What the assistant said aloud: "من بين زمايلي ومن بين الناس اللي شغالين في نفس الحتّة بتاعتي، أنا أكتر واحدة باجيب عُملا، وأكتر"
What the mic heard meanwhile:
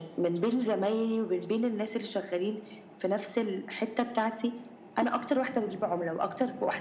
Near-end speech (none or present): none